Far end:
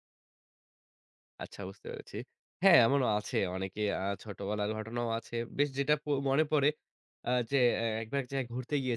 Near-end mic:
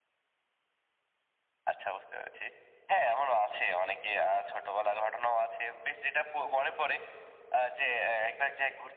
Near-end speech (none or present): none